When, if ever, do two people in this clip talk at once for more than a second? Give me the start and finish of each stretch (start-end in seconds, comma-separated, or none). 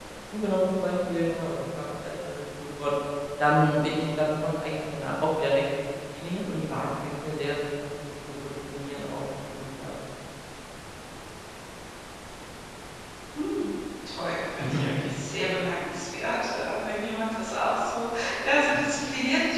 none